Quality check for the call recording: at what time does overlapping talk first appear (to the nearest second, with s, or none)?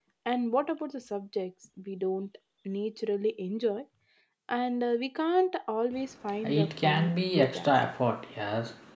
6 s